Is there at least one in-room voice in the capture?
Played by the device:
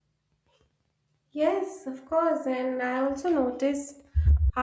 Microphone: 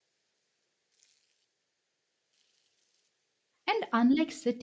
Yes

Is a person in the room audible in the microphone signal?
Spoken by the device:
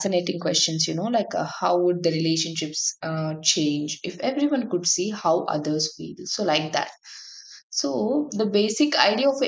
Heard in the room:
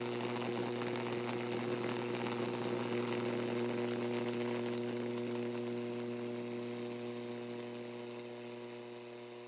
No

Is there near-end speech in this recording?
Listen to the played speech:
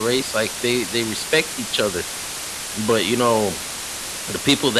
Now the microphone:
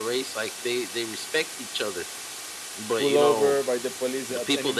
Yes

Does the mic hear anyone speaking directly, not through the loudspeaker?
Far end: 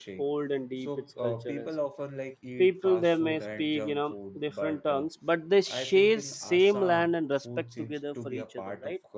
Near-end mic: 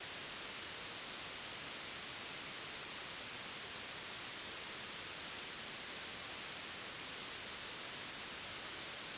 No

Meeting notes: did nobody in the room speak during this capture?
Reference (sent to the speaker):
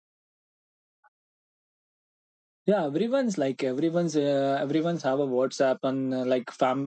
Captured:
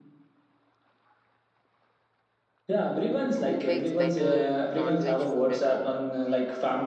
No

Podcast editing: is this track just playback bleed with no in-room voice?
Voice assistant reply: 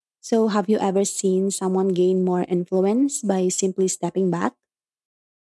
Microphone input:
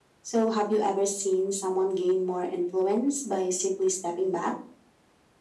Yes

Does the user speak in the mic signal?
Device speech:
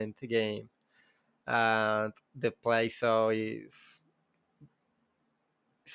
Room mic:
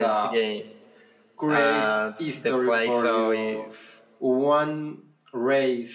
Yes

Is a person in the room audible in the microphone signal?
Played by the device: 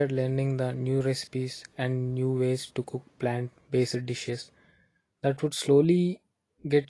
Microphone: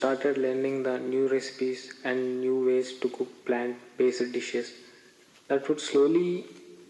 No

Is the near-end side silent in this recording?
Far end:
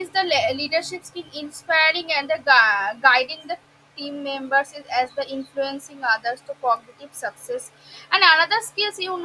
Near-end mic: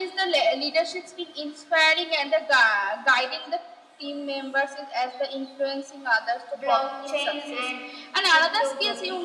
No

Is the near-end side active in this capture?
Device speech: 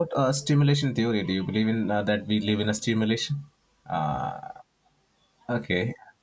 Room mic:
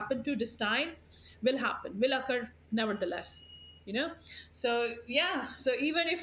Yes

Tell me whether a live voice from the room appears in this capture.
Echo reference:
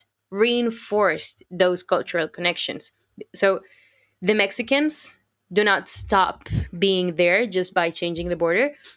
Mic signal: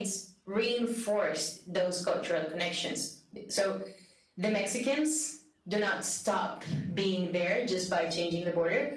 No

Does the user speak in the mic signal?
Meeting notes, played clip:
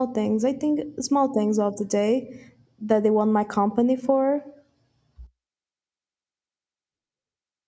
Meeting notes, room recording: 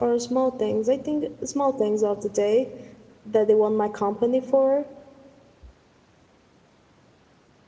No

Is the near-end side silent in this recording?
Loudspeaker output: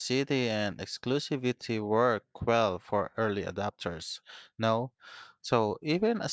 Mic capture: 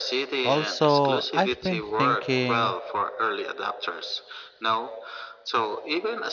No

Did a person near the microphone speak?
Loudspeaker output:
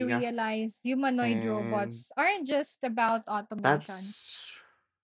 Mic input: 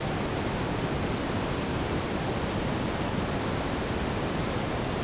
No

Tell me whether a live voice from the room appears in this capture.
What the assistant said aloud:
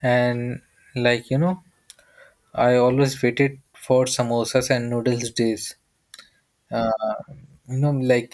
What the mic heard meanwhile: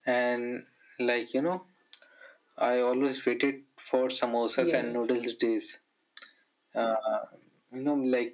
Yes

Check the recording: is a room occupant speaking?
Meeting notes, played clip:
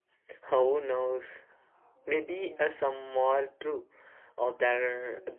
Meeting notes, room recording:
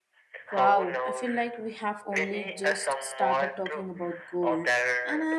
Yes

